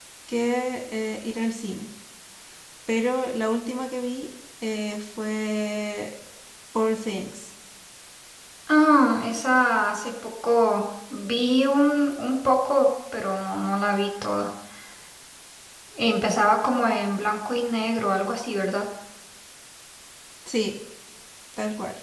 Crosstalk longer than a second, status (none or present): none